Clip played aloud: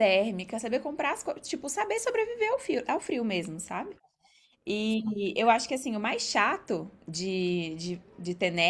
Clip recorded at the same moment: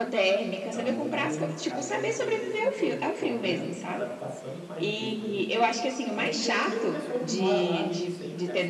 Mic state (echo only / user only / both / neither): both